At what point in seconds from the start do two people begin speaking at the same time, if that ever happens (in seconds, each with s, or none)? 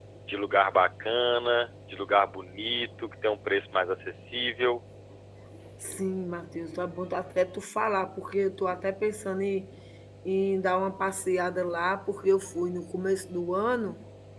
none